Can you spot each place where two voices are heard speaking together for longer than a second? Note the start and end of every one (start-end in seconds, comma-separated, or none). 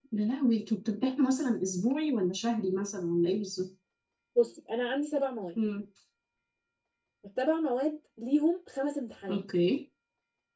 none